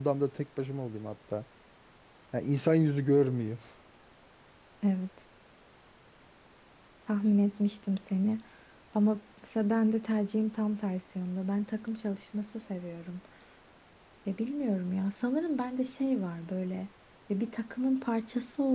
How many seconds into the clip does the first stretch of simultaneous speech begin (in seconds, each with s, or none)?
none